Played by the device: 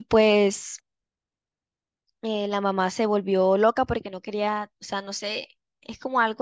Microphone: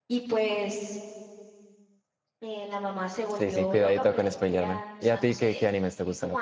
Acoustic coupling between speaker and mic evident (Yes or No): Yes